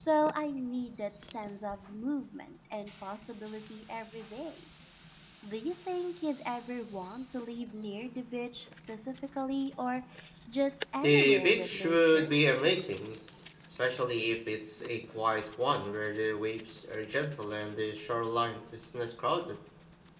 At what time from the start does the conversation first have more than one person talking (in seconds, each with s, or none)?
11.0 s